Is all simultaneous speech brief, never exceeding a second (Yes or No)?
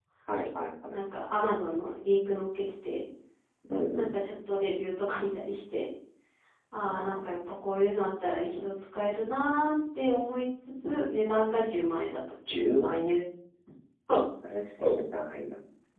Yes